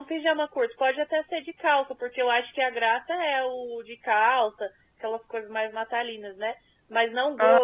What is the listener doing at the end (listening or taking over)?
listening